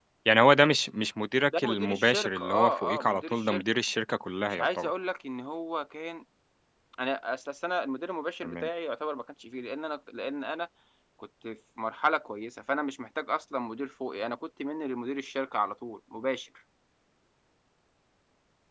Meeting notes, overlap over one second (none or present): present